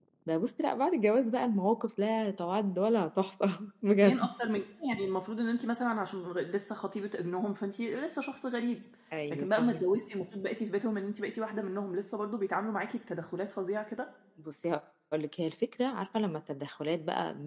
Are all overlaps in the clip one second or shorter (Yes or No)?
Yes